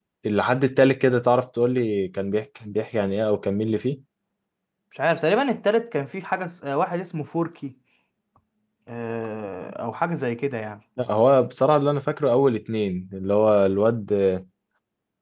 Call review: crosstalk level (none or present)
none